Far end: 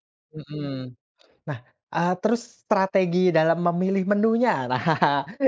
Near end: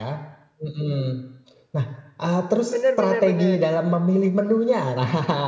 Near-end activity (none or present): present